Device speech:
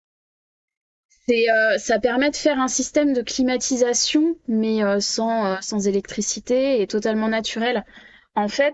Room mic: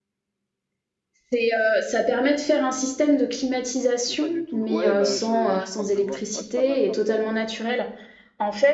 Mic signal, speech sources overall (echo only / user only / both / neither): both